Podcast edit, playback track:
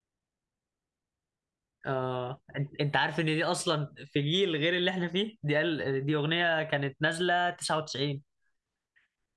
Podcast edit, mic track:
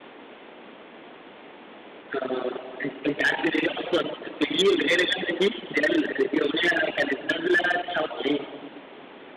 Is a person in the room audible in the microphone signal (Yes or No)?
No